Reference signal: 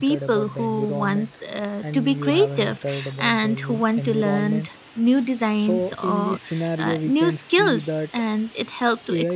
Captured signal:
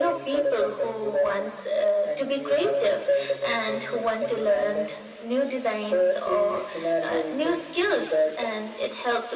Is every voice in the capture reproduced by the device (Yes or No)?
Yes